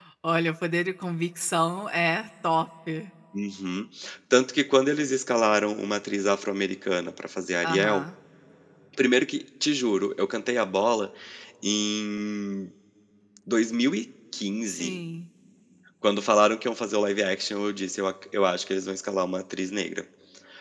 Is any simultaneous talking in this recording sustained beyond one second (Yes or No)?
No